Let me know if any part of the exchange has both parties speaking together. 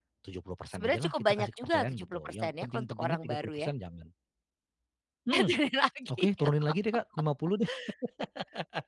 Yes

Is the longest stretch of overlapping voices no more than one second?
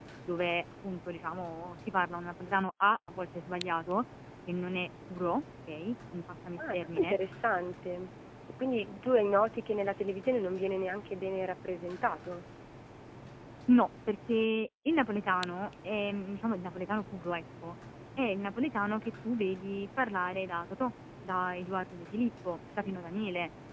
Yes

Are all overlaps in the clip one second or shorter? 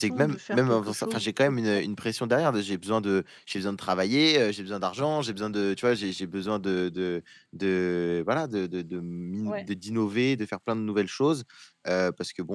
No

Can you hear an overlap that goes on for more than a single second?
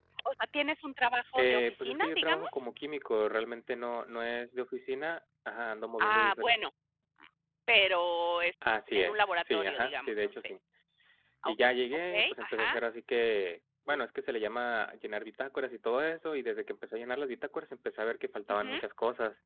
Yes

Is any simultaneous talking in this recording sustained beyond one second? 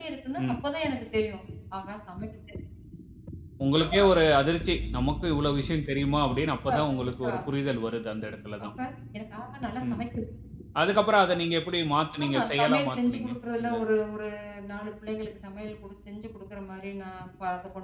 Yes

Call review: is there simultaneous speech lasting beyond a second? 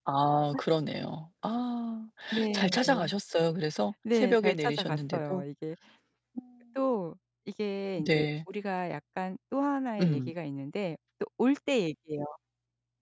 Yes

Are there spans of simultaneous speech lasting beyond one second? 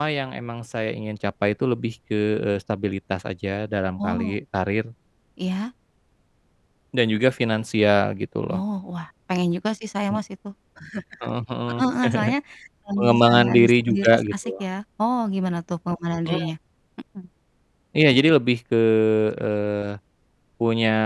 Yes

